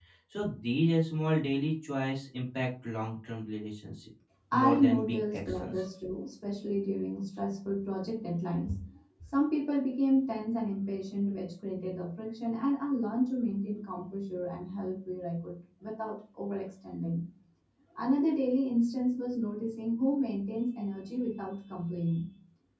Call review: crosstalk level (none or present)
present